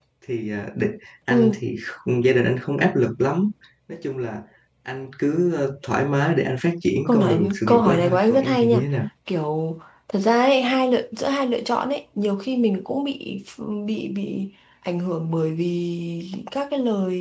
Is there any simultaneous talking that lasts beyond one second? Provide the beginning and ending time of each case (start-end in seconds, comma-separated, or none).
7.0-8.8